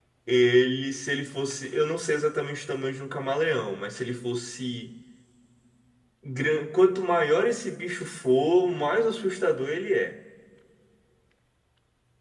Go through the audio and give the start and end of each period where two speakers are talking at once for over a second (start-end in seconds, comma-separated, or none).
none